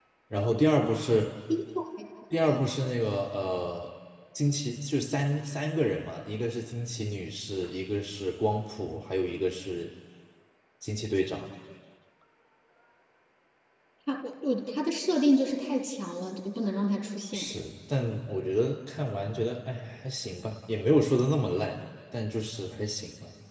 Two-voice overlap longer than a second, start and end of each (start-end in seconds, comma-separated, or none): none